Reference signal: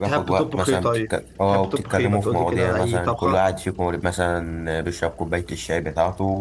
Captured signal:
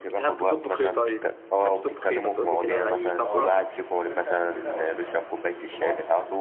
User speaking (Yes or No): Yes